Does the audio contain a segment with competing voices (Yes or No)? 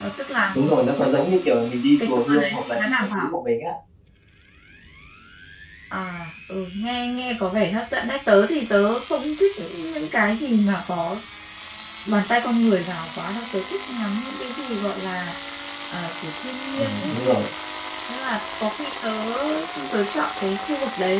Yes